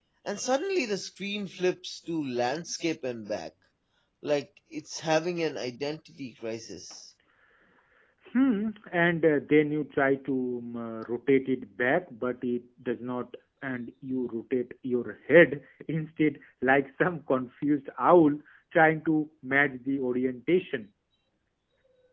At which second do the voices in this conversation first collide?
none

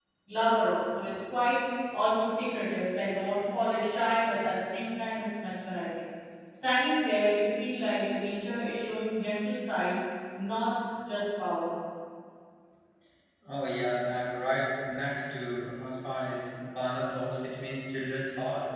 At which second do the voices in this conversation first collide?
none

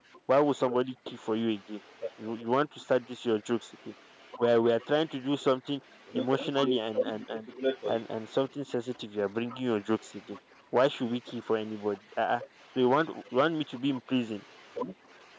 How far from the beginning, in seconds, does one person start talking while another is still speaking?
6.1 s

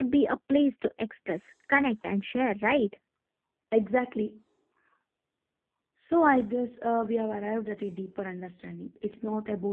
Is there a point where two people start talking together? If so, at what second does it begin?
none

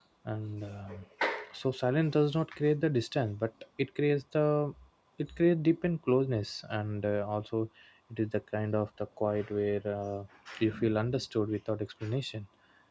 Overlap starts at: none

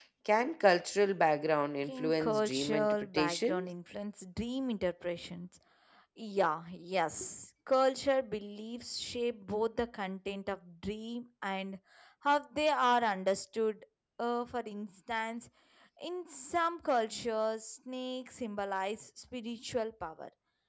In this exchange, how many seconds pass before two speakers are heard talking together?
1.8 s

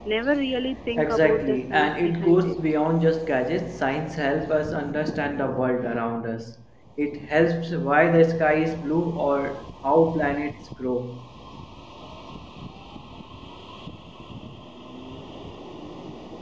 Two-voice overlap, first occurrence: 1.0 s

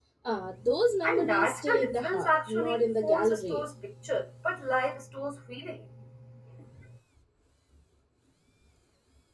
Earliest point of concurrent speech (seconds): 1.0 s

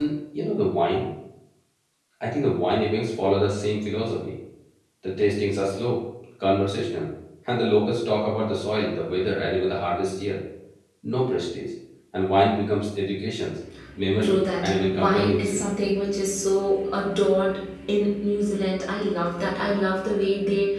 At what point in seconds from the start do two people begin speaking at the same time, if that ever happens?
14.2 s

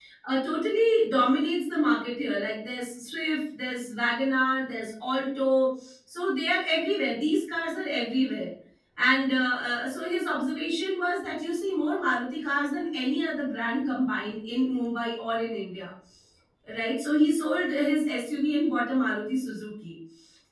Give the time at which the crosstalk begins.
none

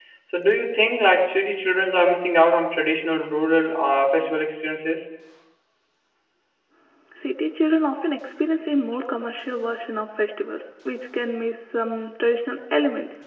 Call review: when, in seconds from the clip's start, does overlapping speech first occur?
none

